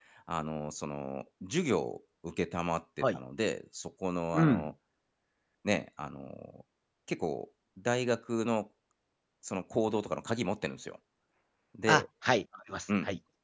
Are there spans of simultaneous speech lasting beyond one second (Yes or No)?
No